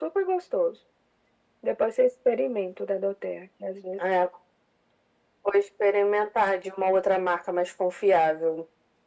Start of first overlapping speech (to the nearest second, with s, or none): none